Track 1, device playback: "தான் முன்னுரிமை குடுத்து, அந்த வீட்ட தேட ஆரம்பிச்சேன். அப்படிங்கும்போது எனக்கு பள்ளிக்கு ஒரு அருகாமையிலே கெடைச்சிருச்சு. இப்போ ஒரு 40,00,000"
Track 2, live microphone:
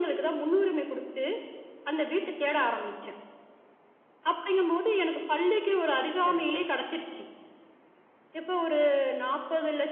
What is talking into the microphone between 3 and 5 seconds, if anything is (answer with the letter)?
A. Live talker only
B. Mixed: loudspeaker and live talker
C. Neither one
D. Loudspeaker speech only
D